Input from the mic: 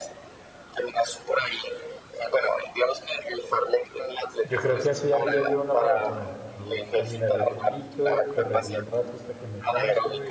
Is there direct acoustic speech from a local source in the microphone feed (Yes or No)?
Yes